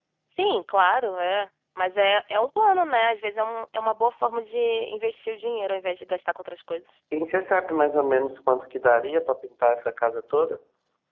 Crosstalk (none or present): none